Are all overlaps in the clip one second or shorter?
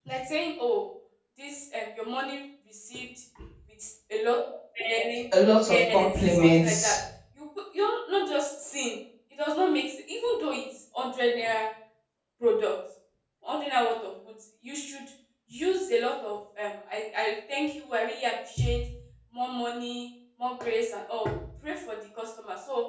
No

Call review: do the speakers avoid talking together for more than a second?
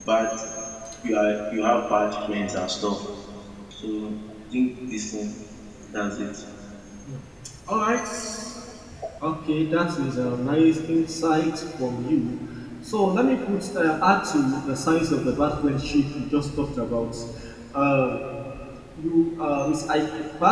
Yes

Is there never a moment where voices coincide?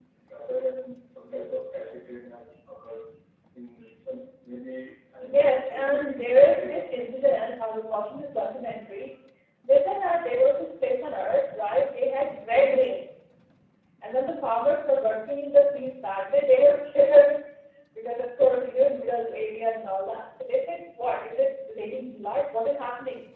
No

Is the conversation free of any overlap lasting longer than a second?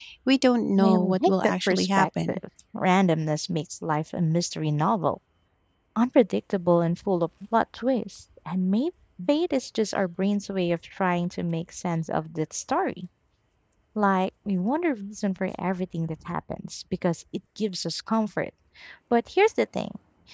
No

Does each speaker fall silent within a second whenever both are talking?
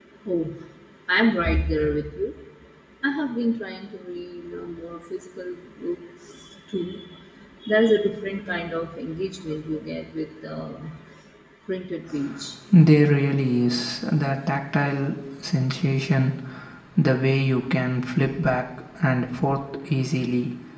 Yes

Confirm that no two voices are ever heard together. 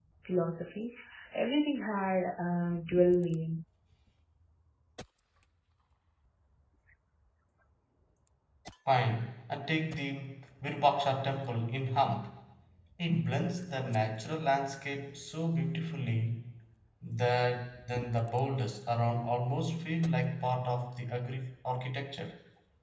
Yes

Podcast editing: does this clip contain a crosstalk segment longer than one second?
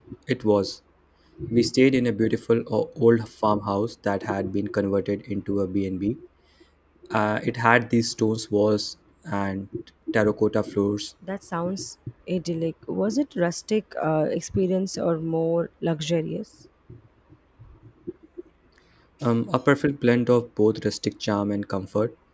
No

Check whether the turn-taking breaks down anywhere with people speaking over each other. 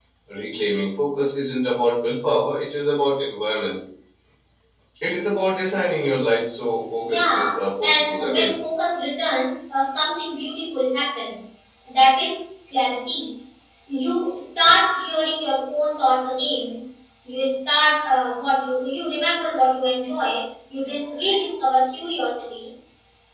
Yes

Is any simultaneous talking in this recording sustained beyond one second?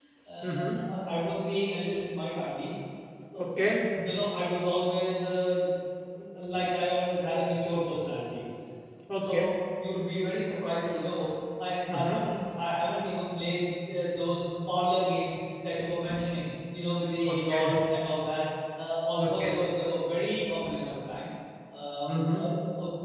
No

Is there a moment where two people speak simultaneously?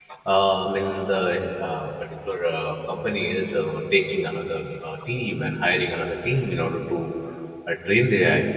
No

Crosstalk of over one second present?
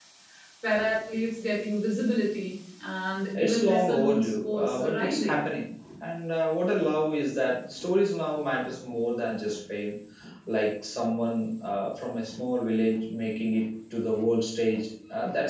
Yes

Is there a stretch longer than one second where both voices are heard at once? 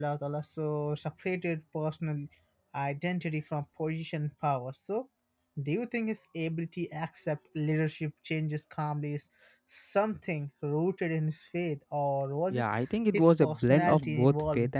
Yes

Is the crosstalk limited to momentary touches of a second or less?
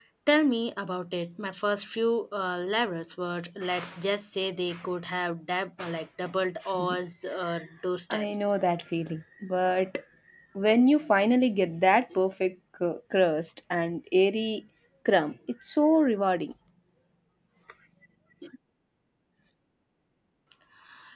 Yes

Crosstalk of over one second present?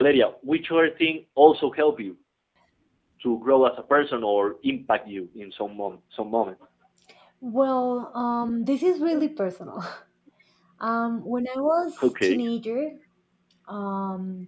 No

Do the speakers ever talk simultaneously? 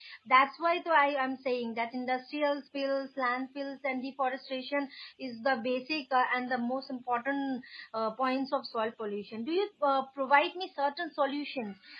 No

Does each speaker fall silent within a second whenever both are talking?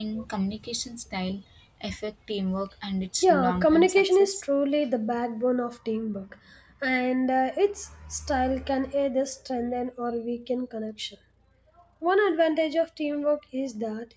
No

